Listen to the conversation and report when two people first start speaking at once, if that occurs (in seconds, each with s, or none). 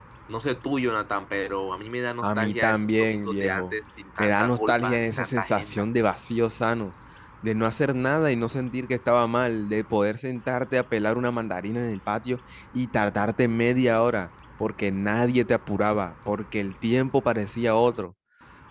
2.2 s